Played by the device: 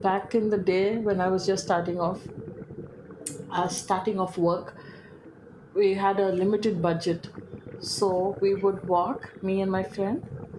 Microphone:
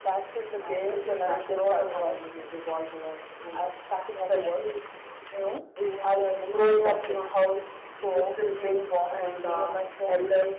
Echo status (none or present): present